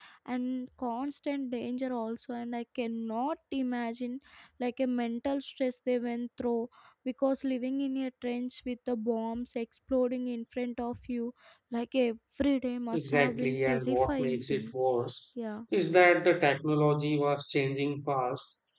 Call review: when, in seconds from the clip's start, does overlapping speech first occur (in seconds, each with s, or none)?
12.9 s